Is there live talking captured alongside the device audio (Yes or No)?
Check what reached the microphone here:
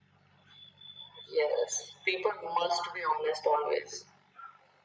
No